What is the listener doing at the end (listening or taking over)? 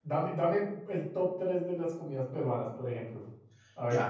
taking over